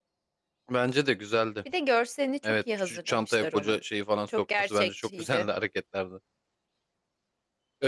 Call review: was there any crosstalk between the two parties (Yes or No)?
Yes